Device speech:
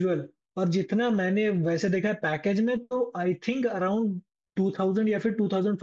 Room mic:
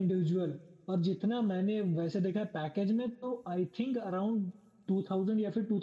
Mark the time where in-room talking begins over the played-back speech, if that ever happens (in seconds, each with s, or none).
none